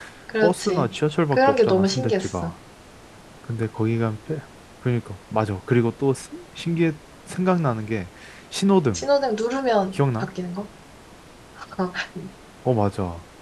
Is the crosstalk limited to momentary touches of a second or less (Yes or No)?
No